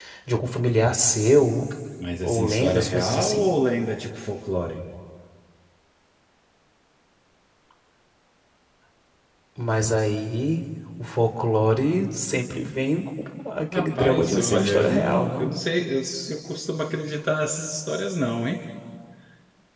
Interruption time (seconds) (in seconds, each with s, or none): 2.2 s